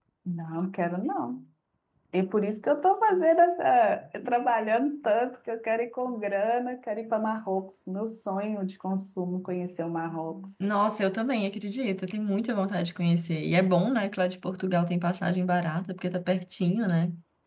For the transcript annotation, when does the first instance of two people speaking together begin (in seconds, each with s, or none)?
none